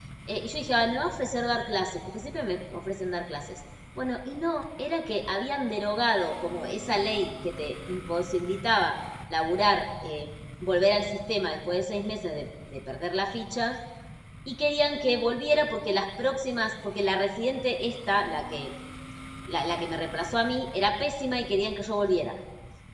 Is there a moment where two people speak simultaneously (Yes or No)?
No